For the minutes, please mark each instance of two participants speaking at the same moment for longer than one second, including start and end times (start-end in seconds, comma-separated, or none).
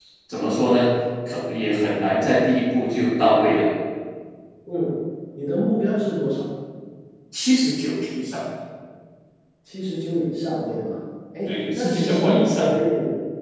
11.5-12.7